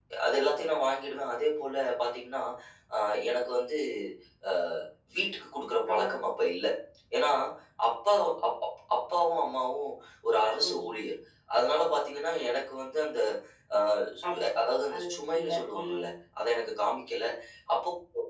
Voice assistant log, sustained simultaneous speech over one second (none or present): present